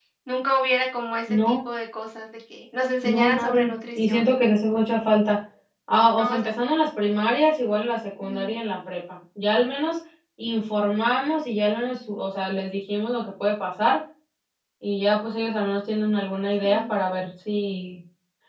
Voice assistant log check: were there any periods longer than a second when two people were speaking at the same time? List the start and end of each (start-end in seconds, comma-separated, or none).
3.0-4.3